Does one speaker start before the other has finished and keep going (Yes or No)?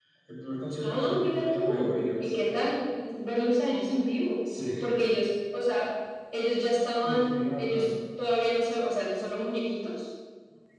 Yes